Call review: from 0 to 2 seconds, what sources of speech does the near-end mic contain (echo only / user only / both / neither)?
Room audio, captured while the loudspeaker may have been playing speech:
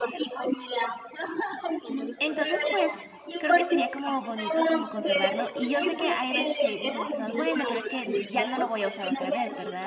echo only